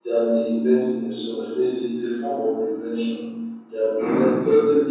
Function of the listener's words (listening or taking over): listening